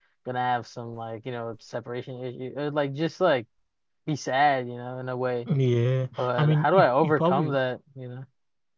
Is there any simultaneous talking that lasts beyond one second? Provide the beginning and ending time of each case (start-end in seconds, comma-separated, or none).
6.2-7.5